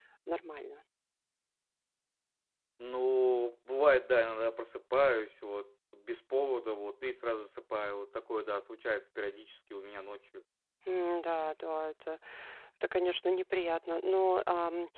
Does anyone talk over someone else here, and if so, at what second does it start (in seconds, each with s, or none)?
none